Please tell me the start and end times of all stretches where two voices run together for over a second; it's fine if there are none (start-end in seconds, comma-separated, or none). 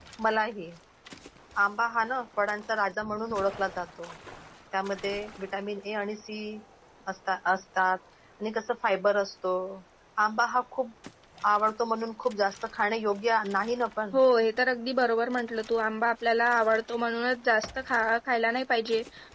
none